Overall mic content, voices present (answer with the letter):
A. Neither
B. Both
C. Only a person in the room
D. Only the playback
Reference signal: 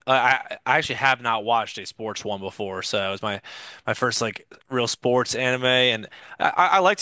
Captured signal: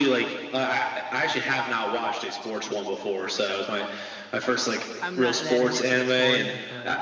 B